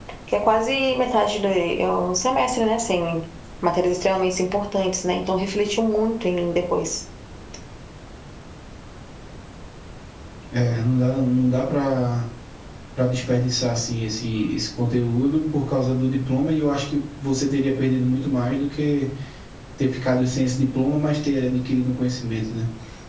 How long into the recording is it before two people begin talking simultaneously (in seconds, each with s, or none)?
none